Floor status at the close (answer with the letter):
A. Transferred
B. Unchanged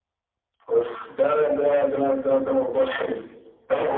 A